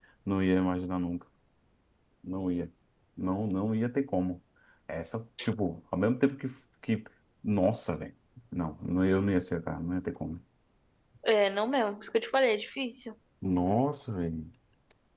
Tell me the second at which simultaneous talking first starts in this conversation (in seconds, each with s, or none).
none